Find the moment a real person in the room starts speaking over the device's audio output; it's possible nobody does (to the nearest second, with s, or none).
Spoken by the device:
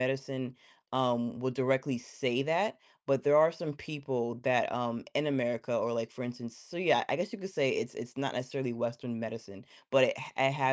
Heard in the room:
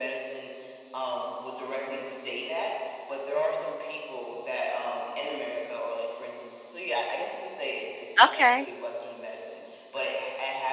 8 s